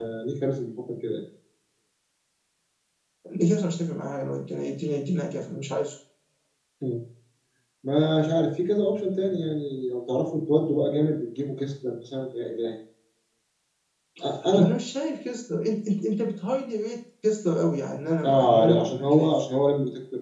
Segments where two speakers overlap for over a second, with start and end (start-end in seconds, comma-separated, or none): 18.2-19.4